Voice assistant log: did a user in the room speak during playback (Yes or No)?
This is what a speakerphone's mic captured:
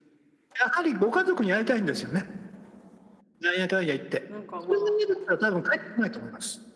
Yes